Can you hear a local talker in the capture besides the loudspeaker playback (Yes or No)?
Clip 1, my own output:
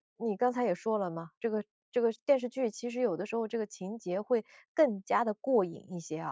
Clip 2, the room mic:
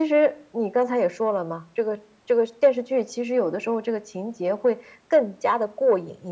No